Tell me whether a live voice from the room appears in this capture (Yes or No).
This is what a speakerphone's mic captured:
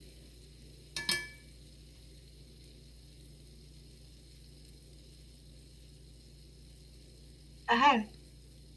Yes